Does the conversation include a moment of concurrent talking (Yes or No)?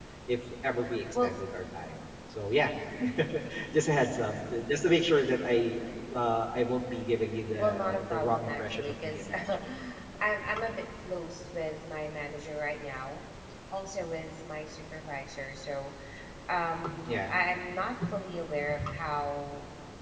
Yes